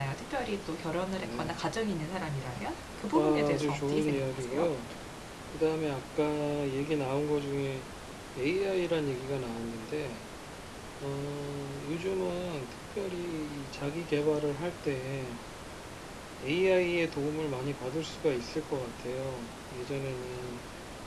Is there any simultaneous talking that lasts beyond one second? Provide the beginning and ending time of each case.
3.1-4.7

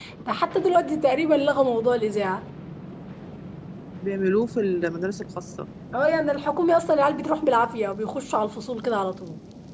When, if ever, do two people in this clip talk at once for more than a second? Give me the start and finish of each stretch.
none

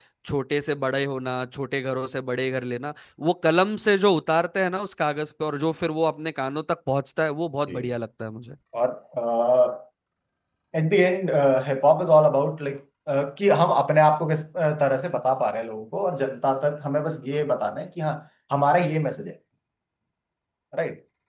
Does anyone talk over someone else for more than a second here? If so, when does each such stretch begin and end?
none

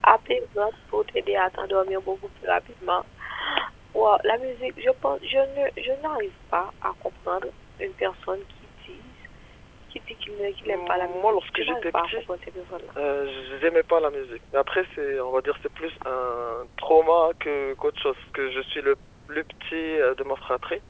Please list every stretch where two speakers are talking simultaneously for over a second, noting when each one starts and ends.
10.6-12.1

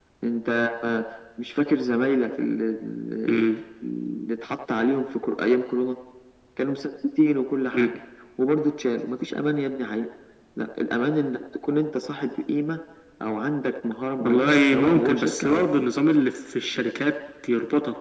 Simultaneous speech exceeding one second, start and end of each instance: 14.2-15.9

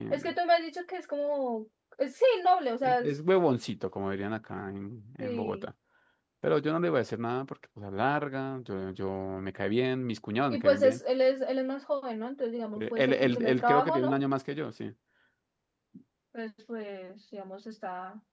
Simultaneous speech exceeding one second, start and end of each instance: 12.8-14.2

